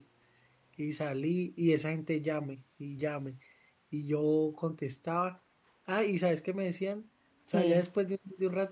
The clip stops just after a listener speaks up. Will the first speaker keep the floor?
Yes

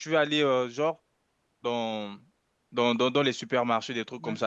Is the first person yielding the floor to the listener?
No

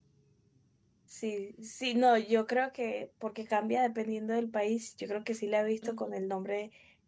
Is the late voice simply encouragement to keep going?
Yes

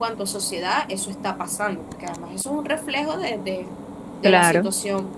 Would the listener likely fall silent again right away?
Yes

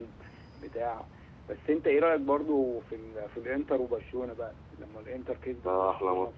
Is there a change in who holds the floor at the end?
Yes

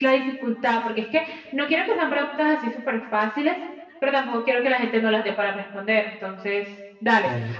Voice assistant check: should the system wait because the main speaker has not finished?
Yes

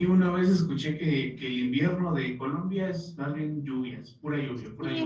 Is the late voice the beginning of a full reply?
Yes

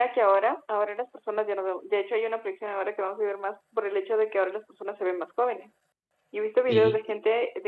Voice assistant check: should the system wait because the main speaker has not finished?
Yes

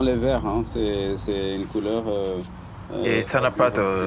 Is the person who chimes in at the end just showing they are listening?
No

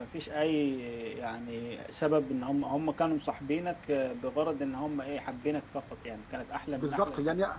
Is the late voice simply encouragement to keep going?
No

